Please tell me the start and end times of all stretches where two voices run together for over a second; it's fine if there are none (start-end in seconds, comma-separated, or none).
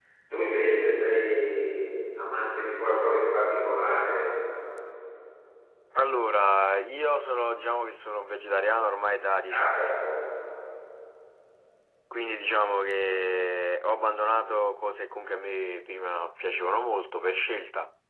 none